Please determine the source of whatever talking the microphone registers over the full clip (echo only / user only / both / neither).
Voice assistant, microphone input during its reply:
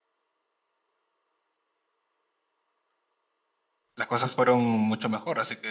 user only